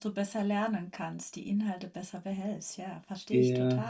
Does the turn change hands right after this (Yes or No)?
Yes